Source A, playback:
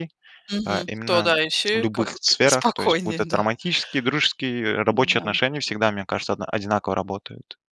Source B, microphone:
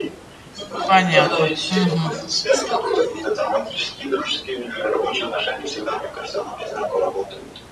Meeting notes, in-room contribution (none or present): present